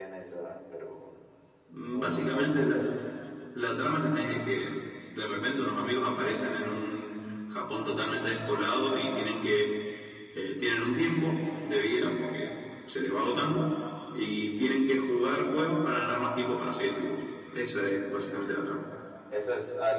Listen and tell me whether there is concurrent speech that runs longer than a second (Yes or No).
Yes